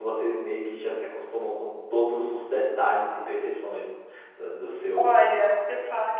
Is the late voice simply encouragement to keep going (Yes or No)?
No